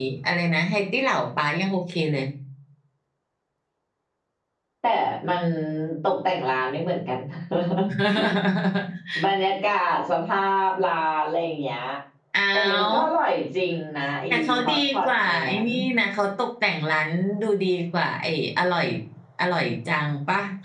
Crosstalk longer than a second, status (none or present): present